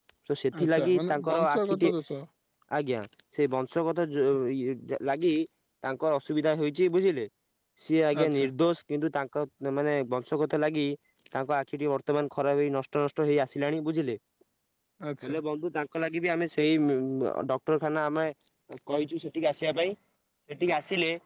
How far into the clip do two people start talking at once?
0.6 s

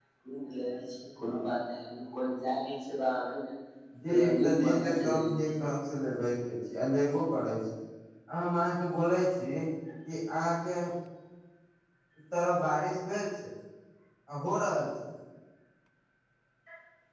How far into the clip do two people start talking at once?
4.1 s

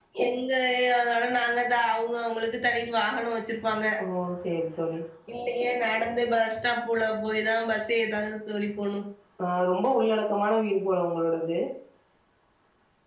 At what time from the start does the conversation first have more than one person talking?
none

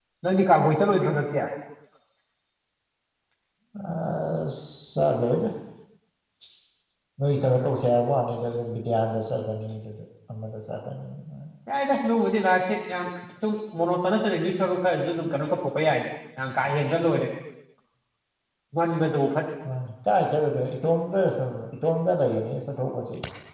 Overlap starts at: none

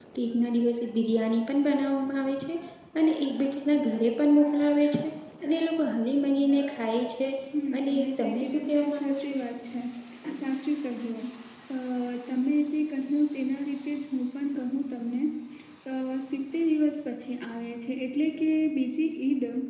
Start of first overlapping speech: 7.8 s

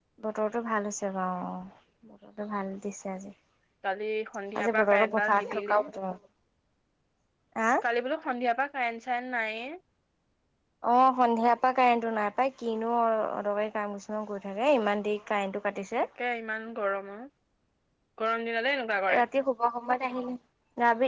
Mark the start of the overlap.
4.6 s

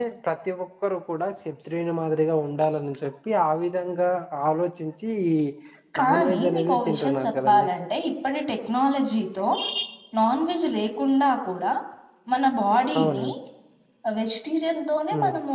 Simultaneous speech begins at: 6.0 s

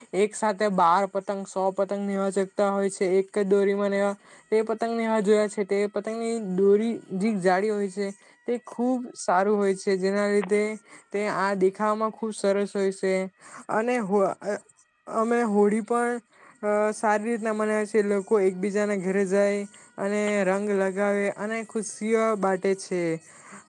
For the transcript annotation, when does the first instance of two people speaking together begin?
none

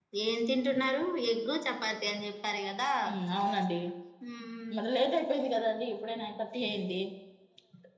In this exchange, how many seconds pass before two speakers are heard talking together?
none

